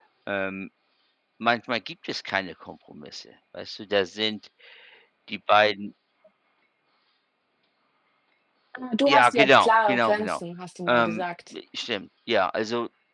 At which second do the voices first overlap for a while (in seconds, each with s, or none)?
9.1 s